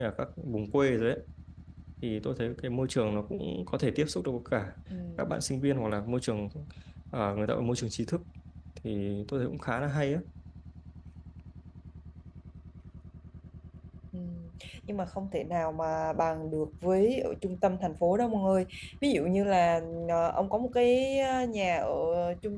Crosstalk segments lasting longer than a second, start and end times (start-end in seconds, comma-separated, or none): none